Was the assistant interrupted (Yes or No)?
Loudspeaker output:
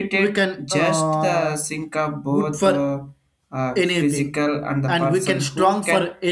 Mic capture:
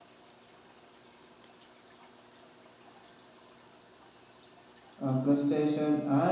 Yes